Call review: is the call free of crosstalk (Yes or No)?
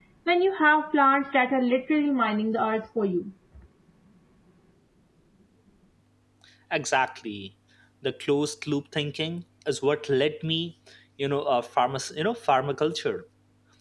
Yes